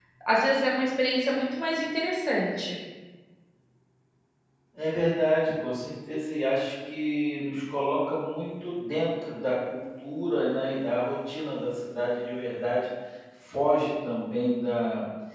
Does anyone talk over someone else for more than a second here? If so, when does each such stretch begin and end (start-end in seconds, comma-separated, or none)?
none